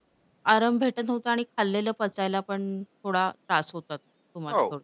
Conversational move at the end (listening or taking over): taking over